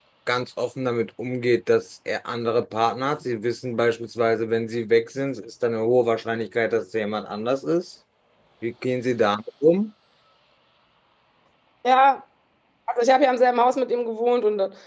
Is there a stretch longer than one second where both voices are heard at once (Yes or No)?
No